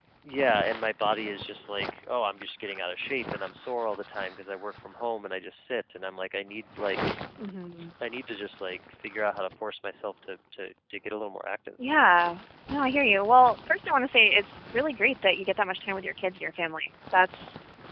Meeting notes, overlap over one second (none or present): none